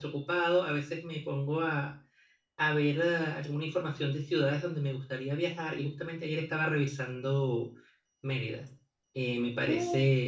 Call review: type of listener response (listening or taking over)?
listening